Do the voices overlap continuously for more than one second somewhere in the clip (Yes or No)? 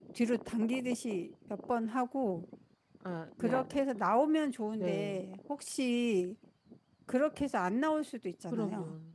No